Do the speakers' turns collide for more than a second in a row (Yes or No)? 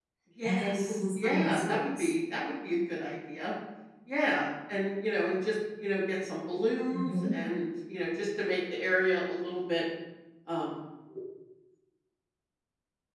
Yes